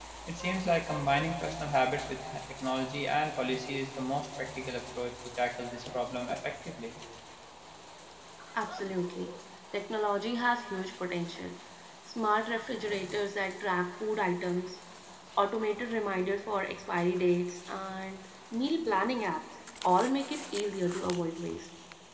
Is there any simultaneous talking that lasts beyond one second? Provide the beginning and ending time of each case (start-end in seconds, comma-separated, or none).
none